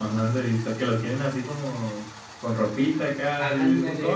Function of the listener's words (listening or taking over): taking over